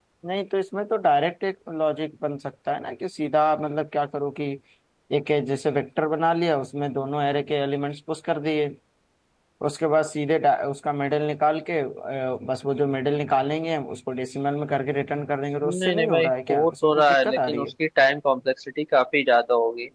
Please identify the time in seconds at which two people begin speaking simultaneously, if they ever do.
15.6 s

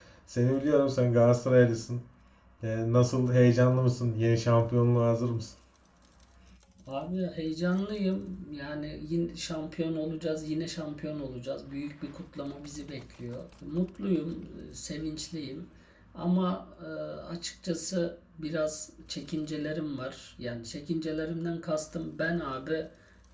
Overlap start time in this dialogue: none

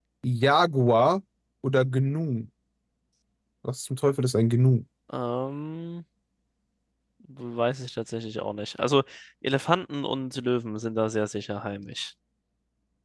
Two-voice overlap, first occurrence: none

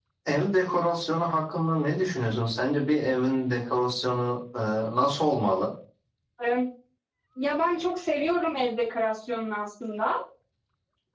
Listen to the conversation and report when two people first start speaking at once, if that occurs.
none

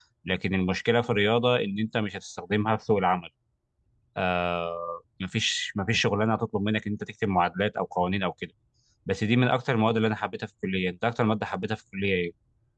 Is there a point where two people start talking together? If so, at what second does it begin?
none

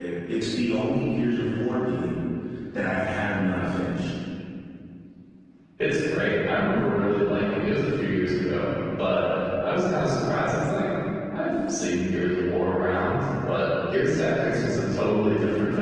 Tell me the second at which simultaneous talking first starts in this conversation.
none

